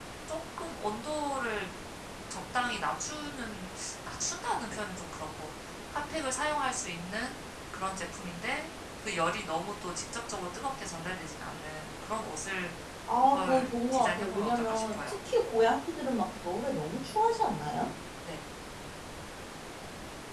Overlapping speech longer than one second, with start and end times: 13.2-15.2

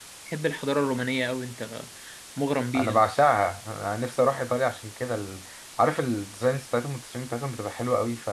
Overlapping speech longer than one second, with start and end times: none

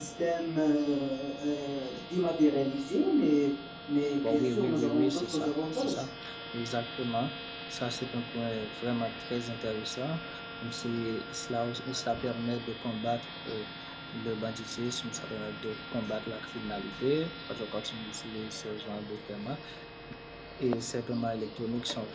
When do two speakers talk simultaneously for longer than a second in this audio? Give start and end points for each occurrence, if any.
4.3-6.0

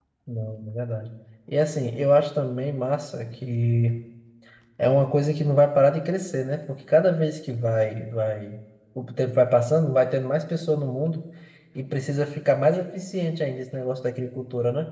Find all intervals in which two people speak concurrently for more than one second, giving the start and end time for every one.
none

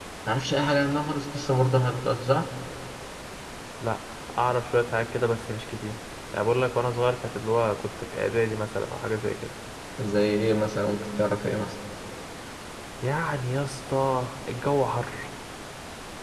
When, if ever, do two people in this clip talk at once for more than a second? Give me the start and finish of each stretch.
none

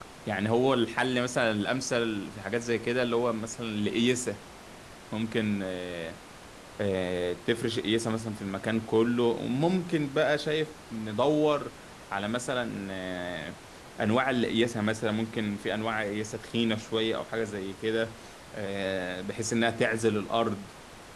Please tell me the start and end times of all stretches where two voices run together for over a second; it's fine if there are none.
none

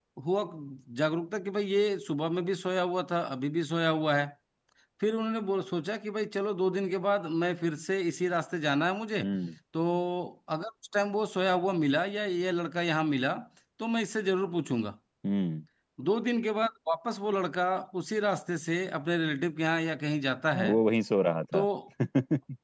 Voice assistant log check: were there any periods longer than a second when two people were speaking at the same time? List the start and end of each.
none

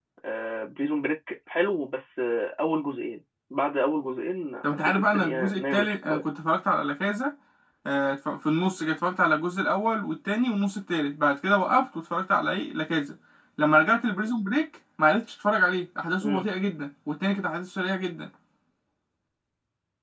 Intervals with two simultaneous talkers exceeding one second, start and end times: 4.9-6.2

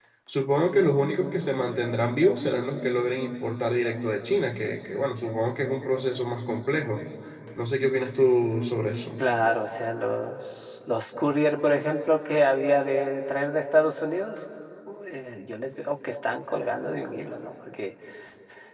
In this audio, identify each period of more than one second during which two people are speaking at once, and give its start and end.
none

